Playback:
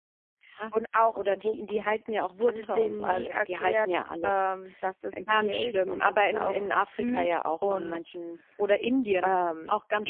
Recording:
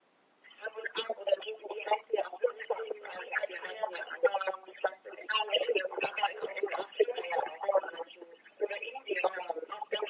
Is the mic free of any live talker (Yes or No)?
Yes